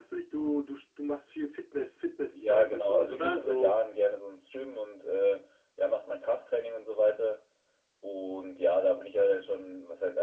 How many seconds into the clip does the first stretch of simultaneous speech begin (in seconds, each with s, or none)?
2.3 s